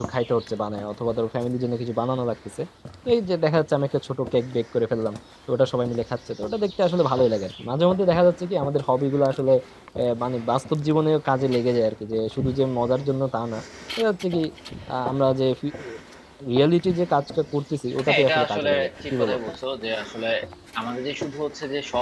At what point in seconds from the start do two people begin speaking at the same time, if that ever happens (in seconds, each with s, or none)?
18.1 s